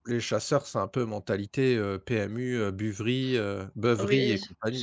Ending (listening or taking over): taking over